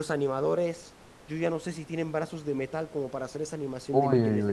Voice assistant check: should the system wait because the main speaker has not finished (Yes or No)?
No